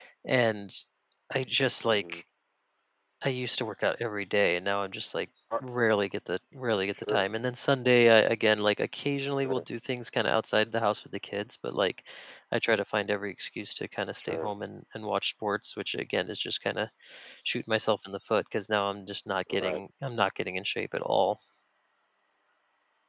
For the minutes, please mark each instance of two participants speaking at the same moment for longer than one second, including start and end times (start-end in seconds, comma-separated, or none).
none